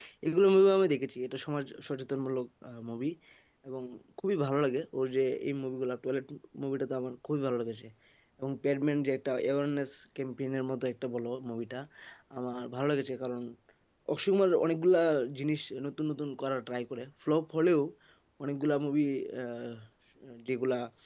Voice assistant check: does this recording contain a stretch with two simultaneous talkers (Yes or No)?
No